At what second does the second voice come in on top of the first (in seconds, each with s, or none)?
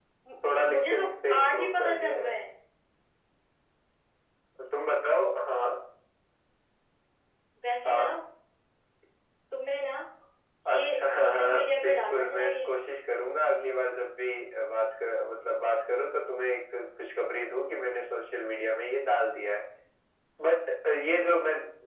0.5 s